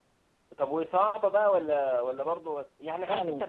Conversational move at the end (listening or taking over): listening